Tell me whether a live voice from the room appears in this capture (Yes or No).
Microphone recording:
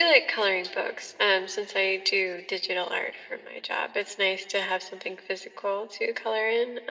No